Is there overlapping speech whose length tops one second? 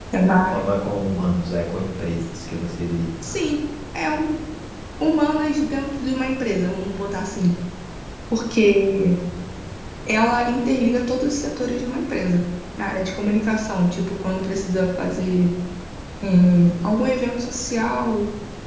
No

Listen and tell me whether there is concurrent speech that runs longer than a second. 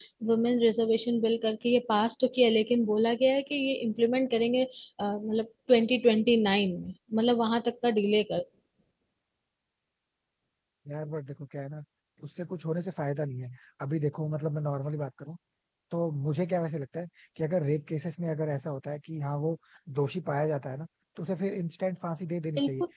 No

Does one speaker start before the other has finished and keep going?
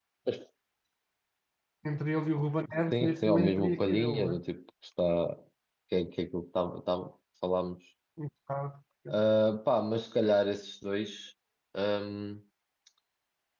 Yes, from 2.7 s

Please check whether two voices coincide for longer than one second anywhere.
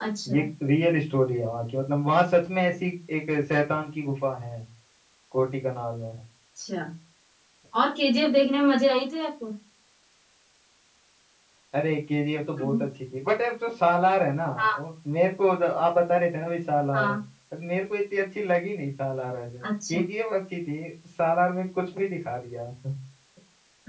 No

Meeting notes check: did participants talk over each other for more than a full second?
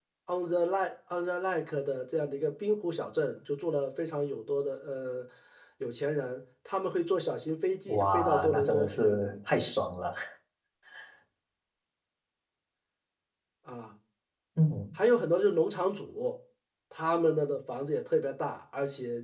Yes, from 7.9 s

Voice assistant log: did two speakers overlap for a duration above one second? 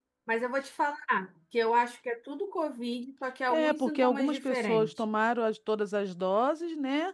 Yes, from 3.5 s

